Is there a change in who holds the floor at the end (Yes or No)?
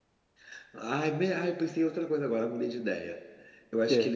No